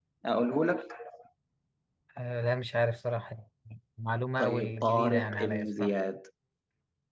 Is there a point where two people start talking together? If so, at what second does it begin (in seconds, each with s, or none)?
4.4 s